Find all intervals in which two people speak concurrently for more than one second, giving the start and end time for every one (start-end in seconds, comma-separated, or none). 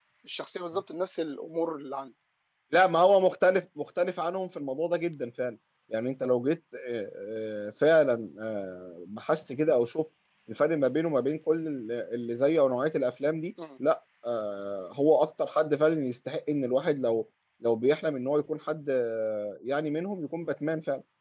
none